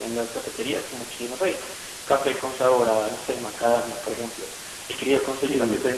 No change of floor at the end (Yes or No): Yes